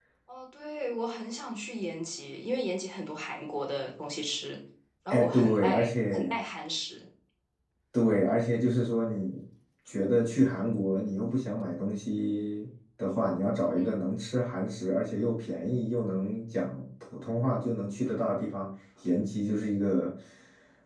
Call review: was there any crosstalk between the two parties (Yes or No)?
Yes